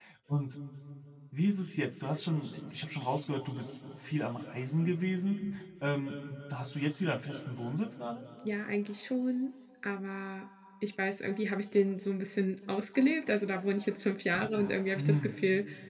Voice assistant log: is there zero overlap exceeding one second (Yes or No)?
Yes